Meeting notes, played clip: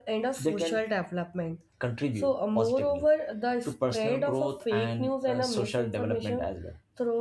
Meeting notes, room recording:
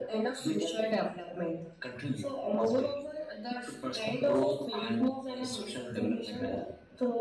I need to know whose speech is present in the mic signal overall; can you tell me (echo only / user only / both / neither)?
echo only